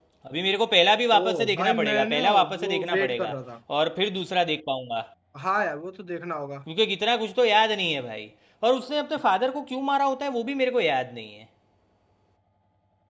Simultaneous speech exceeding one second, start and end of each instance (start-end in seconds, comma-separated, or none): 1.1-3.3